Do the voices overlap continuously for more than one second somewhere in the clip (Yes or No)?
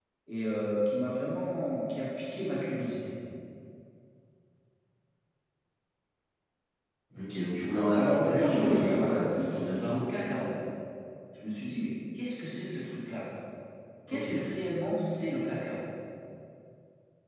Yes